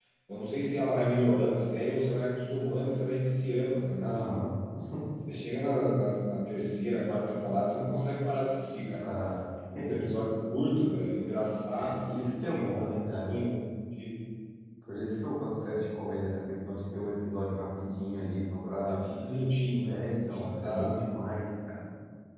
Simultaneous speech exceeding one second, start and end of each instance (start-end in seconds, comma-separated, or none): 11.8-13.3, 19.8-21.0